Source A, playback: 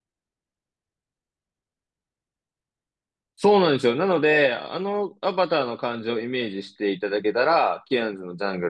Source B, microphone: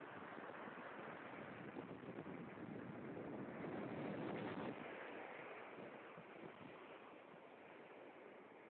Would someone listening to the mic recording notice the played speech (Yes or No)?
No